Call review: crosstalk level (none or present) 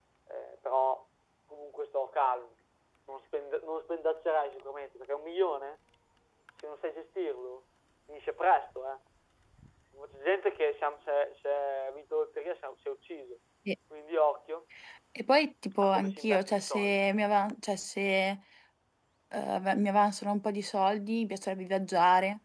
present